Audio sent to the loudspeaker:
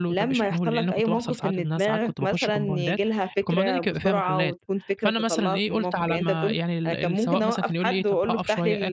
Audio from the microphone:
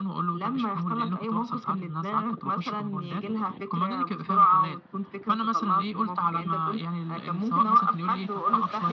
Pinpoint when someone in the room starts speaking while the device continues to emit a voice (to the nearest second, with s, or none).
none